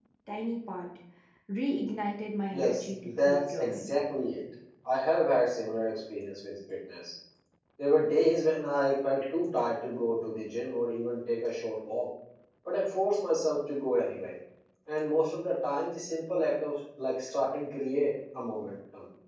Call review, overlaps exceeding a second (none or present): present